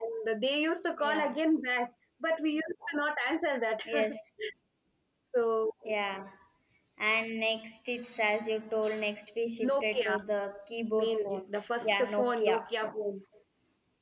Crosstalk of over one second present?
Yes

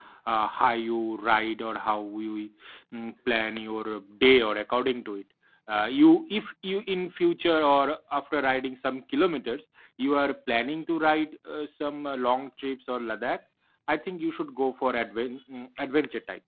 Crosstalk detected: No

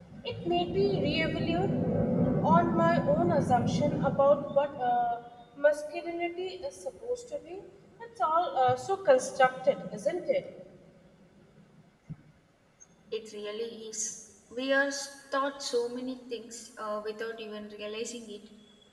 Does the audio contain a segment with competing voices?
No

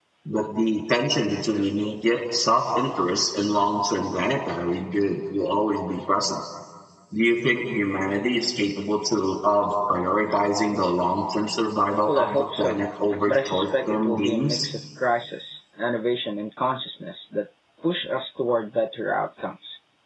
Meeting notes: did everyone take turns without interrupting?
No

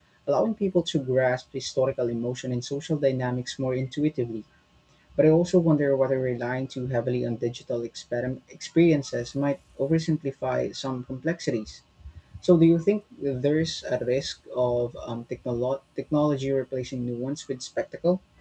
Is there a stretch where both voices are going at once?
No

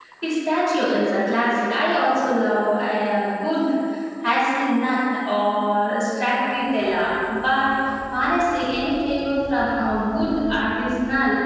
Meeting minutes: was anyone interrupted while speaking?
No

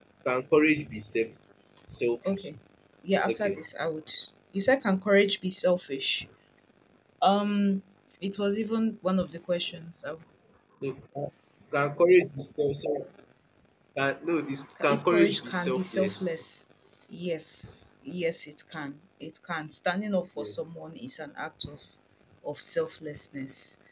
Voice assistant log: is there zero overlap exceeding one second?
No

